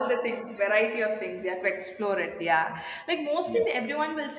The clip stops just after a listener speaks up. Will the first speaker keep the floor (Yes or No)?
Yes